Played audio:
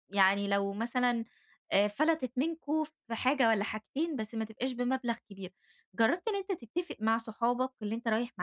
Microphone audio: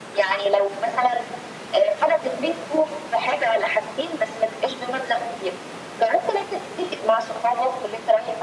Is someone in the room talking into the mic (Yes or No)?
No